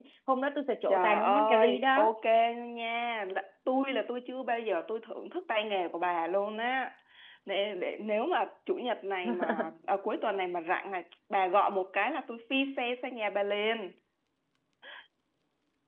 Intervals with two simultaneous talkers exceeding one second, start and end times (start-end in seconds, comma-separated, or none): 0.9-2.1